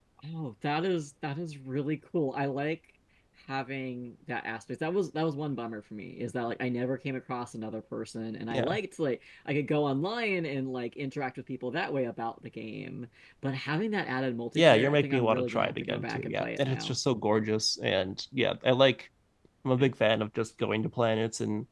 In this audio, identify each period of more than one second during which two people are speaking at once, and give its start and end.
14.6-17.0

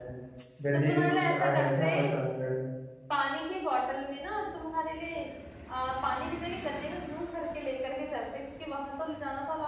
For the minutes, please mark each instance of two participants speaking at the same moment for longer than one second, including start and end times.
0.7-2.1

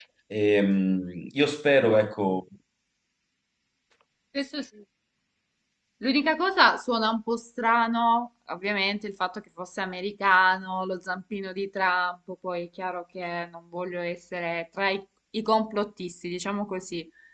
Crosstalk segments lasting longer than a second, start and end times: none

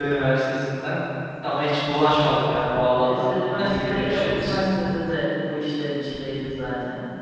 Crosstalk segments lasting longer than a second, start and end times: 3.0-4.6

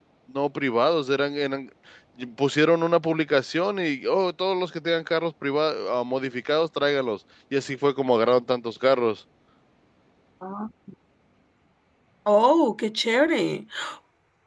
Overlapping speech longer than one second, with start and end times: none

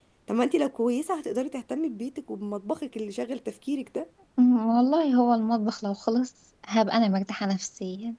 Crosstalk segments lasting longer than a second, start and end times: none

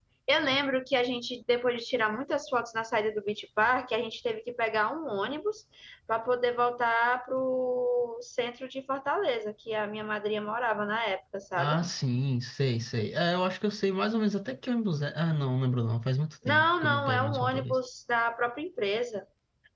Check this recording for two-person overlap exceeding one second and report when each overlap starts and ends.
16.4-17.8

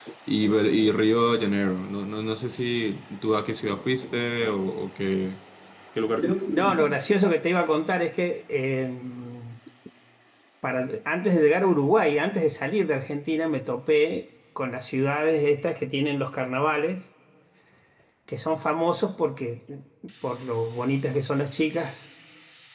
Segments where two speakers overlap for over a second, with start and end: none

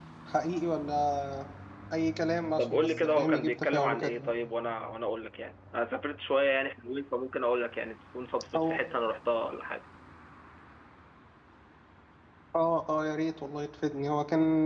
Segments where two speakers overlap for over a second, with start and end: 2.6-4.2

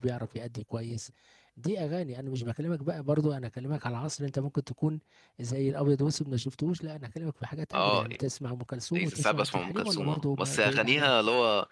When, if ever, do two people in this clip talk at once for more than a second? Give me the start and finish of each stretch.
8.9-11.1

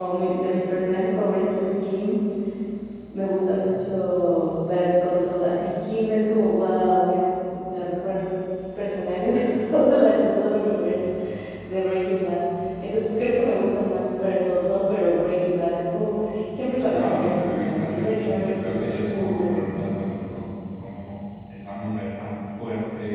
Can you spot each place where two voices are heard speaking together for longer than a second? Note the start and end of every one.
16.9-19.6

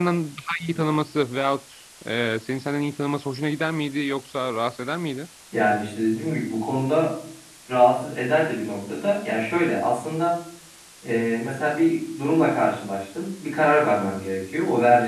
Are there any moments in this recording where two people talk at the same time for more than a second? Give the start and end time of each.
none

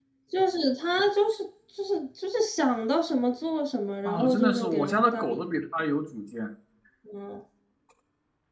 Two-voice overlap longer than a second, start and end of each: 4.0-5.4

